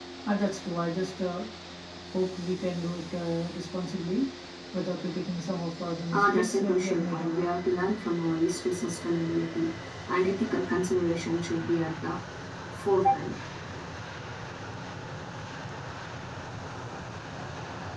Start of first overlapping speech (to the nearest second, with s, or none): 6 s